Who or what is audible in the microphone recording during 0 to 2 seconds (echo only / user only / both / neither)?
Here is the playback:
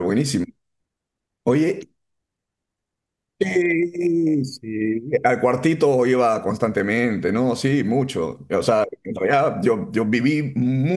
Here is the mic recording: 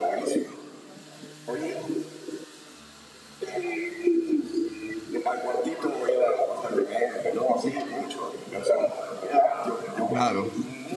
echo only